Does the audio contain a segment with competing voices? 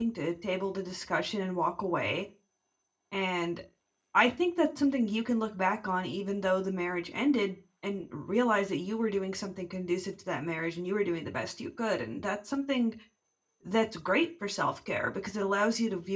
No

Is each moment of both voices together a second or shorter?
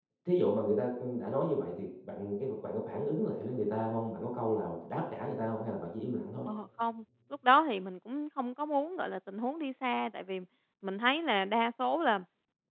Yes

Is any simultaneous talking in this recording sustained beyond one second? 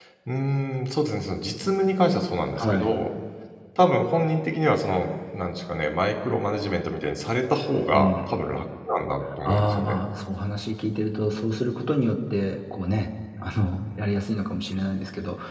No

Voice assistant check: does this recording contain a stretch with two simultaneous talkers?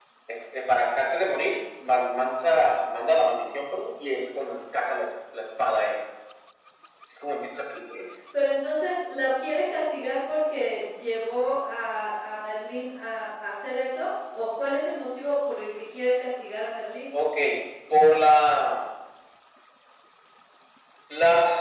No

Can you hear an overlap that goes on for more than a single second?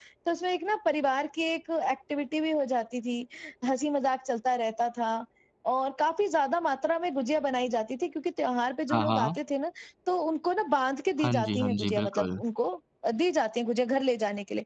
Yes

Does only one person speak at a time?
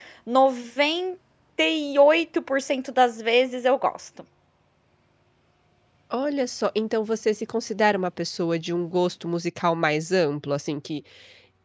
Yes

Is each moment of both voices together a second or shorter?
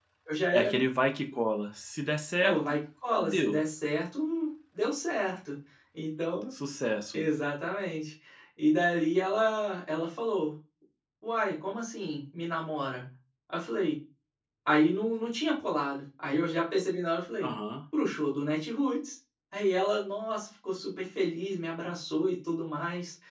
Yes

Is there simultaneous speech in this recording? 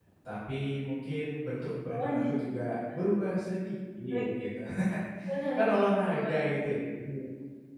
Yes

